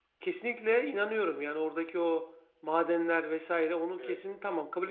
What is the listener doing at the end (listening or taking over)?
listening